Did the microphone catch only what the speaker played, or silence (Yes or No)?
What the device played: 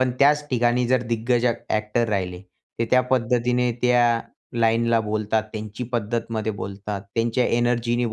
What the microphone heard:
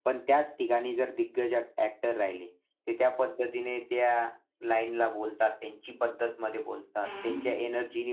No